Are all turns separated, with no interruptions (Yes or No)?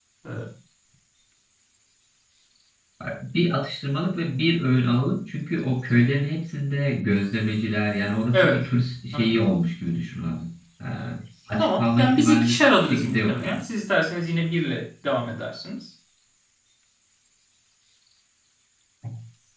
No